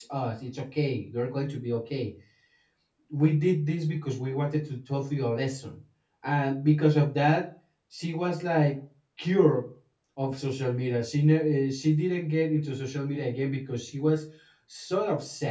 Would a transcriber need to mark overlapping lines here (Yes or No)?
No